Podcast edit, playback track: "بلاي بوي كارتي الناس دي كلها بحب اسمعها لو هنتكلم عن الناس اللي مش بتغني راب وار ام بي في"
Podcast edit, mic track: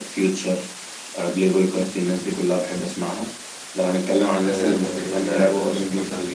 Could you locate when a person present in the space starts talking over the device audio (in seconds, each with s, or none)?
4.4 s